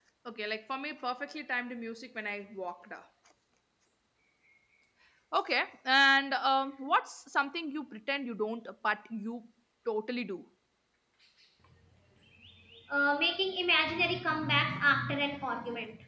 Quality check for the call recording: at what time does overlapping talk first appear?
none

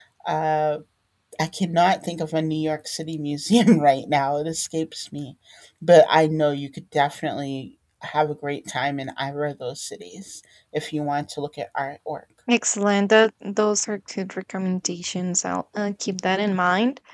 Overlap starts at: none

